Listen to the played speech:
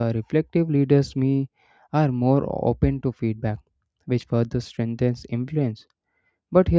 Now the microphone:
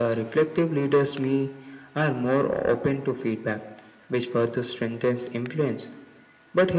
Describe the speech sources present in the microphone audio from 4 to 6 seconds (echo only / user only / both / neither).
echo only